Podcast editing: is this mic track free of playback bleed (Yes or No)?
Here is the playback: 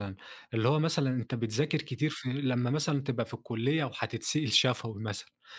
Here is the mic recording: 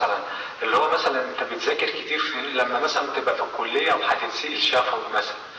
No